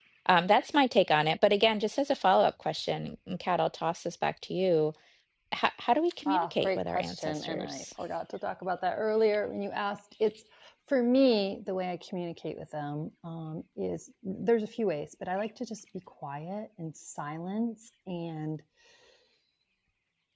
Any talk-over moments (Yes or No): Yes